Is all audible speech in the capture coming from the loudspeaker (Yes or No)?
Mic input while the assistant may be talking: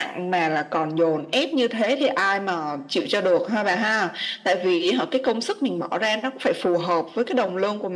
Yes